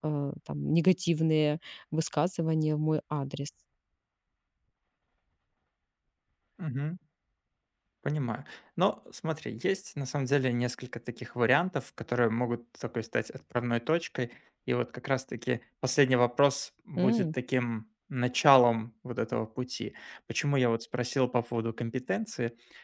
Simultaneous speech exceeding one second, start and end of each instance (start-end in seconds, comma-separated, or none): none